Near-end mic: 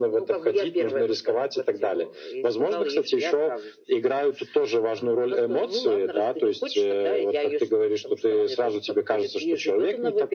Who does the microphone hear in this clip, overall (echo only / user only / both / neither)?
echo only